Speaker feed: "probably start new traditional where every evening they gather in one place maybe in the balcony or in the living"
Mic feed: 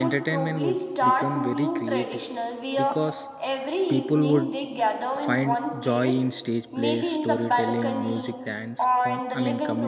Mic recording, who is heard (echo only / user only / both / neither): both